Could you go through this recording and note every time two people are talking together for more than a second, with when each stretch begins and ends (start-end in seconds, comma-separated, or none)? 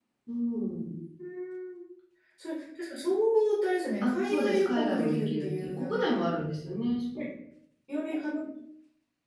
4.0-6.2